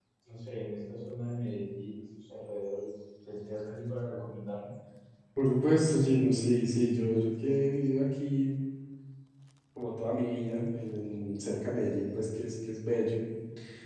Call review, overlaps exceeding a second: none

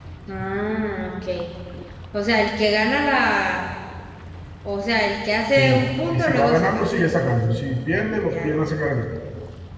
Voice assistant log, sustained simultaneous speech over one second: present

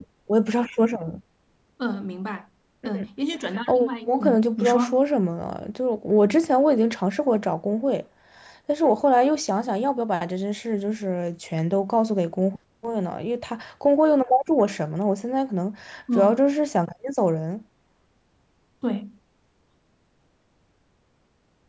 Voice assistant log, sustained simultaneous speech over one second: present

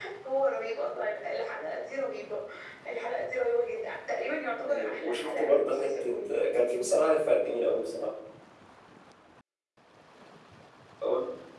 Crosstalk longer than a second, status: present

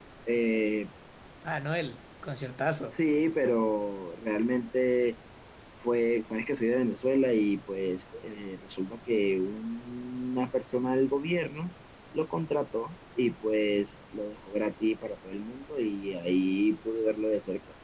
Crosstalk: none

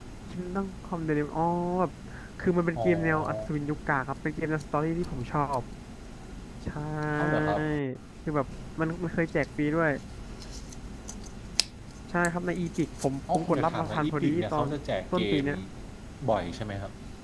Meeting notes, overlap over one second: present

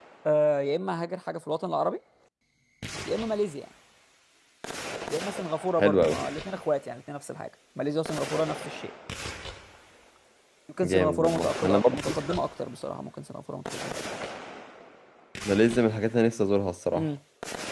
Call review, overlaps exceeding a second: present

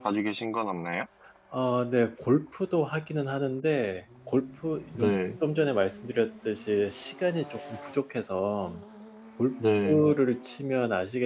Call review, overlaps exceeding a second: none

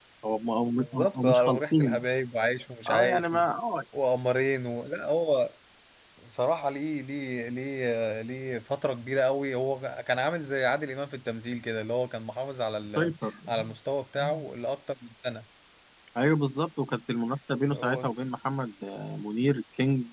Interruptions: present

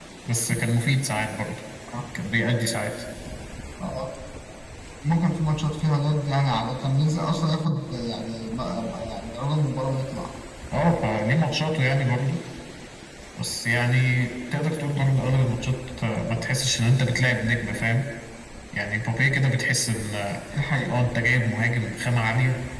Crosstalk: none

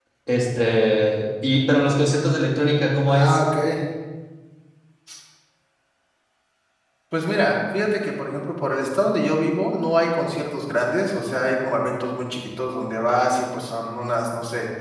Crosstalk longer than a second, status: none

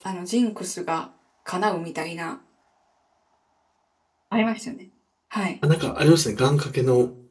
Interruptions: none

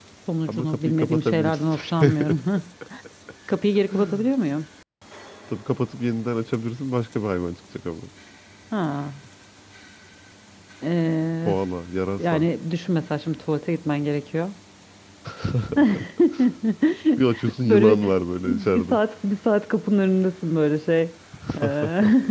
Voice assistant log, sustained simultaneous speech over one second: present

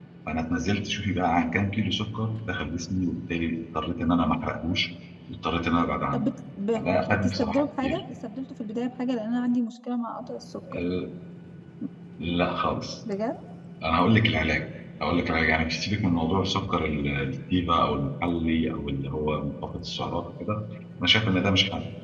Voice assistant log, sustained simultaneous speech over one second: present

